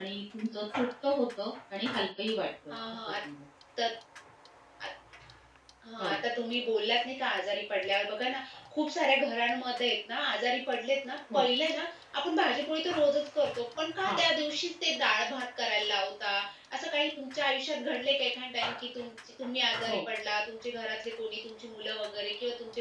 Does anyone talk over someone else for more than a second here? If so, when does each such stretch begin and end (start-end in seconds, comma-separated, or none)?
none